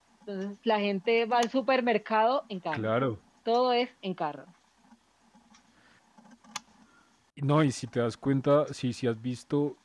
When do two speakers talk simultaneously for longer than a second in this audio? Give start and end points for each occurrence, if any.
none

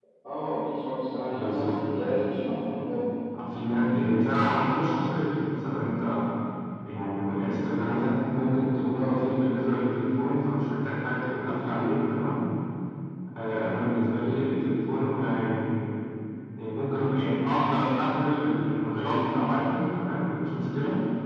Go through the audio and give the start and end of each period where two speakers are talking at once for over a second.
1.3-2.7

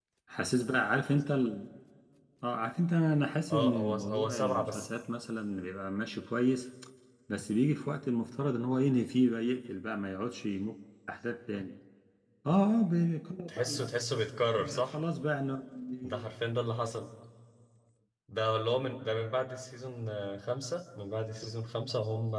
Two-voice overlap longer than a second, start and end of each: 3.5-4.9

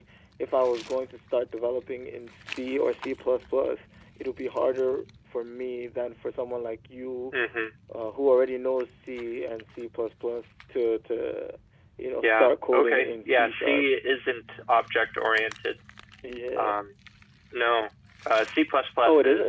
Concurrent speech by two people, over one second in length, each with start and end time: 12.2-13.8

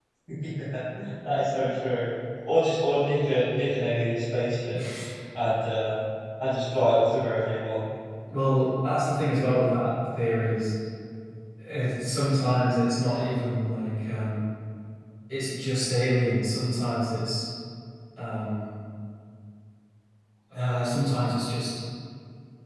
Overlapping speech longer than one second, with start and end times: none

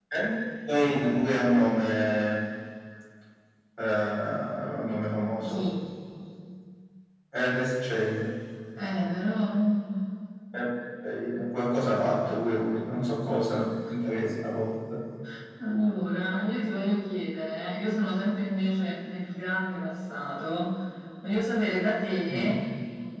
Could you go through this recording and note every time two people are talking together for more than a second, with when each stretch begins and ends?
12.2-13.6

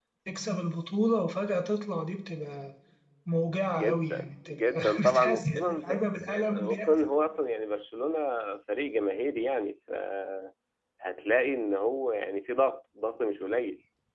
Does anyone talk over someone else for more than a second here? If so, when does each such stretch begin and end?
3.8-6.0

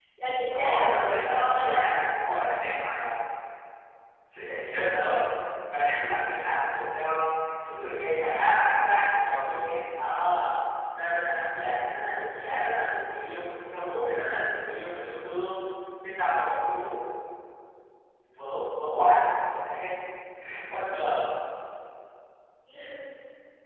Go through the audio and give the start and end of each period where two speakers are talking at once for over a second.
0.5-1.8

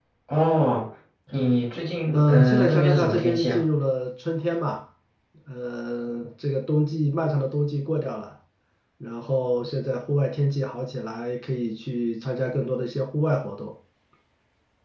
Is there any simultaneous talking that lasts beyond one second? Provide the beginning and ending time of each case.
2.1-3.6

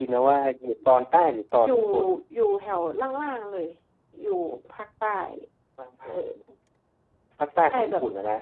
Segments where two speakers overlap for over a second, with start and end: none

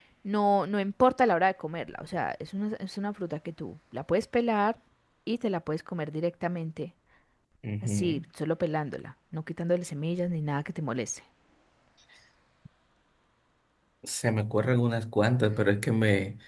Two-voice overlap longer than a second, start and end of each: none

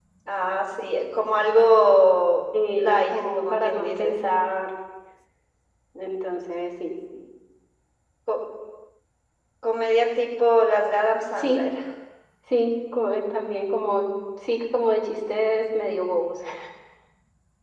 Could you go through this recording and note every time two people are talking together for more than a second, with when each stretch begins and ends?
2.8-4.2

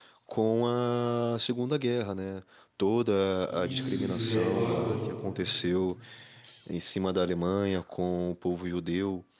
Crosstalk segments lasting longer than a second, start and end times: 3.5-5.0

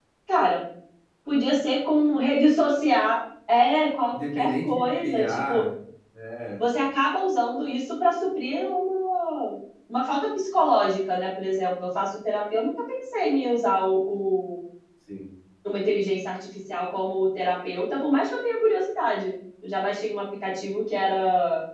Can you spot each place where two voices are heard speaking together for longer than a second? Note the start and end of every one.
4.1-5.6

